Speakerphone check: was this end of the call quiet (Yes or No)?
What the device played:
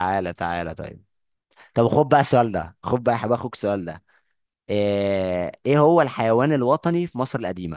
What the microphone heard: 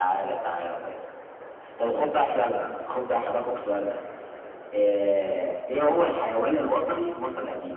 Yes